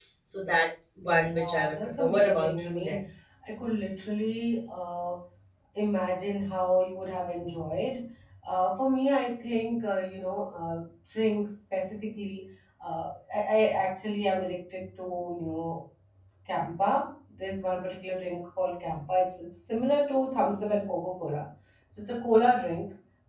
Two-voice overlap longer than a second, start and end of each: 1.3-3.0

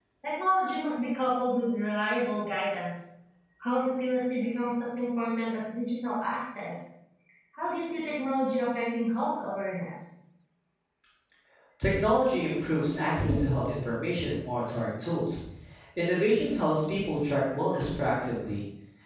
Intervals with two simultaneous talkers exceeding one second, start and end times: none

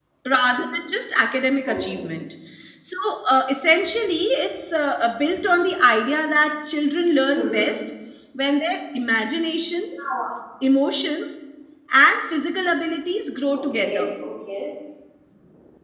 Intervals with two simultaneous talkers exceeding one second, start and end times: none

